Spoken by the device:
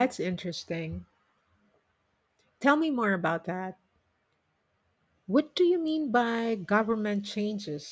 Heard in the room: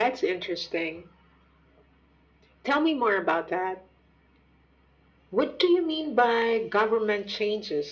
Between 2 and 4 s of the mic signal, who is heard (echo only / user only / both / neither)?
echo only